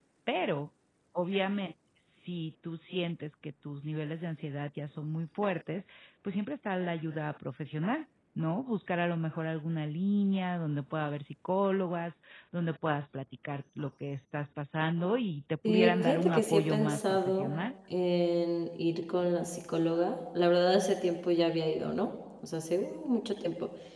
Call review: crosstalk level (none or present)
present